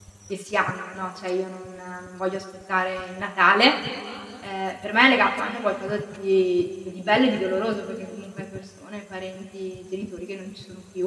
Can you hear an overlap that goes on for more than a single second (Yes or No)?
No